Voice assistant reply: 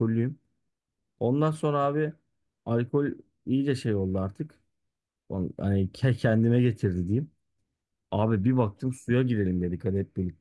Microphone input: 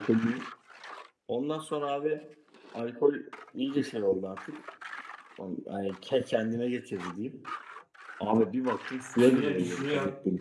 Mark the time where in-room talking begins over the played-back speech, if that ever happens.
9.2 s

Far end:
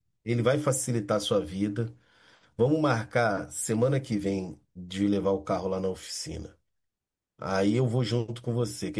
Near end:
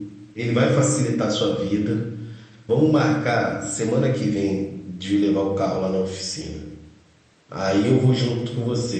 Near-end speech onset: none

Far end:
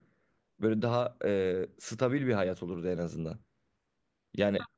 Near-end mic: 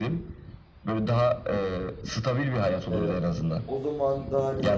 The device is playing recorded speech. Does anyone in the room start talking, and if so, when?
2.9 s

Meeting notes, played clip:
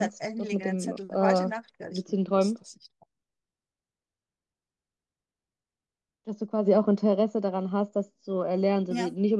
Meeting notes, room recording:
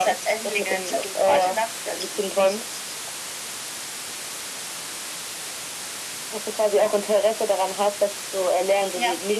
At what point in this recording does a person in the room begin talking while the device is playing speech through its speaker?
none

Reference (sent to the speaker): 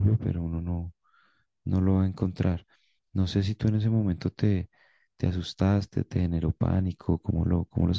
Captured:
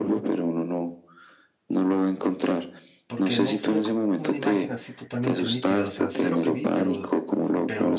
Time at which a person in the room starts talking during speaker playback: 3.0 s

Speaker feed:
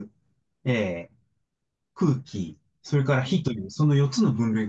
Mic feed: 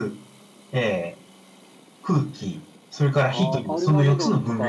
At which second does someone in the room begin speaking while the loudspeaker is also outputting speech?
3.2 s

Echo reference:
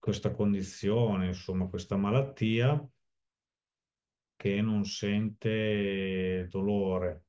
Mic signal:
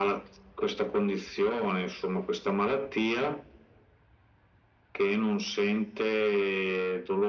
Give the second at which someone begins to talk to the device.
none

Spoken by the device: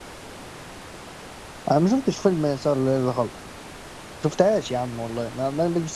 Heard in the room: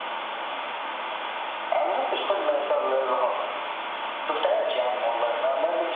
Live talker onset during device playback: none

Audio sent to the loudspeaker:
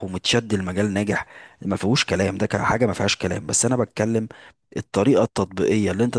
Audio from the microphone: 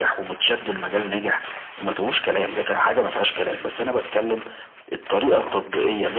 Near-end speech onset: none

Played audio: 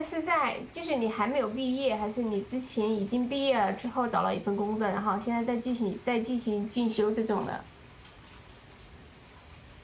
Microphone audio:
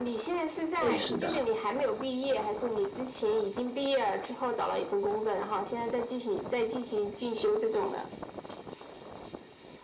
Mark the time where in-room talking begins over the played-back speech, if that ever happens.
0.8 s

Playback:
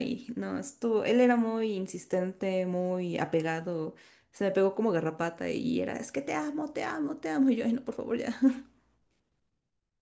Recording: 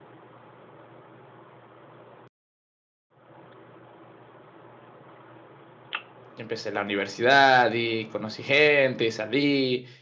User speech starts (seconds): 6.3 s

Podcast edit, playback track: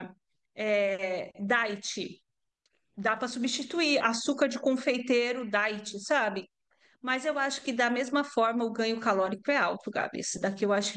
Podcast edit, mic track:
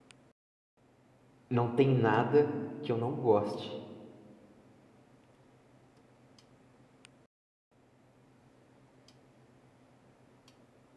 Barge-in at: 1.5 s

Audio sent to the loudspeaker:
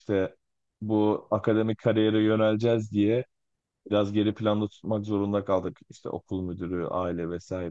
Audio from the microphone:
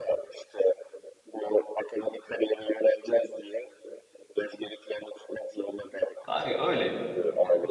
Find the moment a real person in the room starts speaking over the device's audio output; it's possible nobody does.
6.2 s

